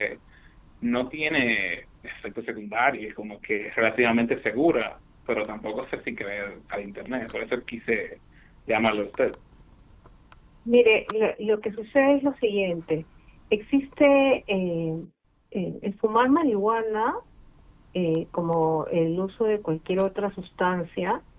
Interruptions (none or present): none